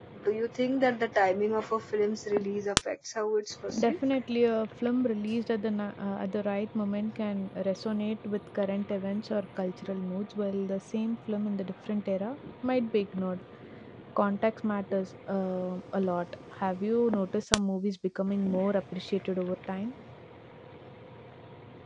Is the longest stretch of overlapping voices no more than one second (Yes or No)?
Yes